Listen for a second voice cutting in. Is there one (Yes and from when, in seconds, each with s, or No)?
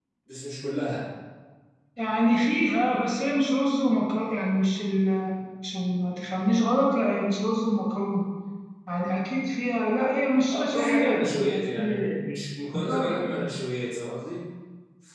Yes, from 10.5 s